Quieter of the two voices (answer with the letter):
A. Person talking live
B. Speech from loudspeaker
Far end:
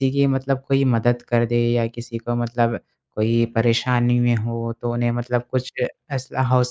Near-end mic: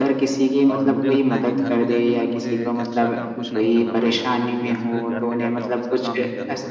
A